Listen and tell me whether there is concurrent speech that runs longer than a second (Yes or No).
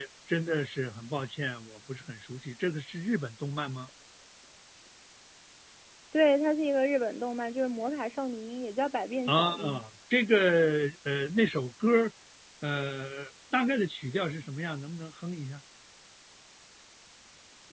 No